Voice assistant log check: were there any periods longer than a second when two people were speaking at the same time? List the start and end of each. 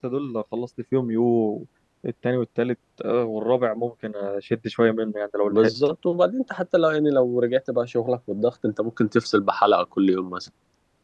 none

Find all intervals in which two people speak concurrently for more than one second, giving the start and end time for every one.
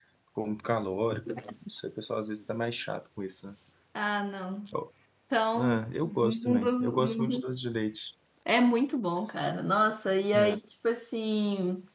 5.6-7.5

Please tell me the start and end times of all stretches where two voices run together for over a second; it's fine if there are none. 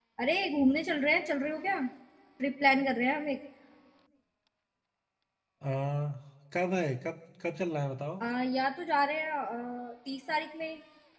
none

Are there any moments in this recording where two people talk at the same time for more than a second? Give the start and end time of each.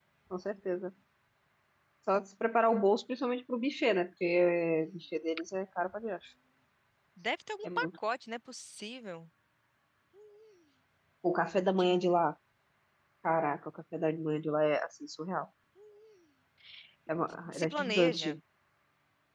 17.2-18.4

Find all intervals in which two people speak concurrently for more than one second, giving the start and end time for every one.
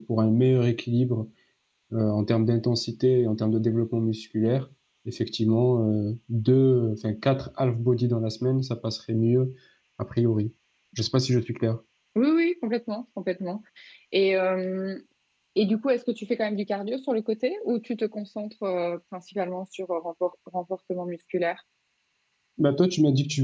none

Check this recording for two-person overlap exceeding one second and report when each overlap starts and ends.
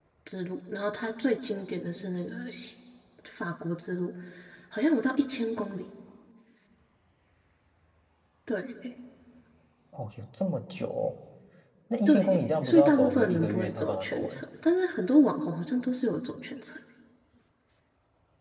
12.1-14.4

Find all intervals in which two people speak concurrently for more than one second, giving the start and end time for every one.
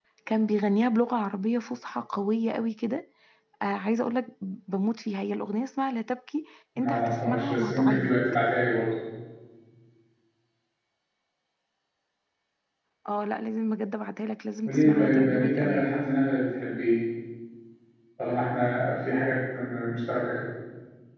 6.8-8.1, 14.7-15.9

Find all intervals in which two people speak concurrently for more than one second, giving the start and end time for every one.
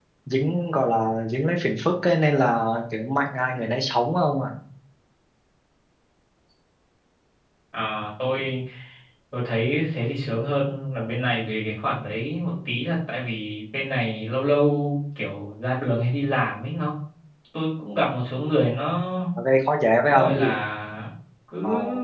none

